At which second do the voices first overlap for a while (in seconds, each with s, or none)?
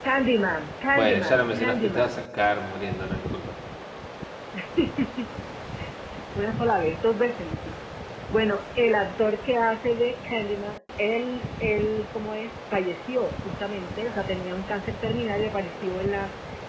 0.9 s